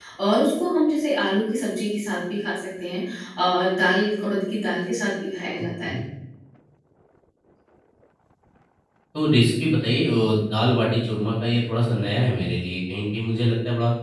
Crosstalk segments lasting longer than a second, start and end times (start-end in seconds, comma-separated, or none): none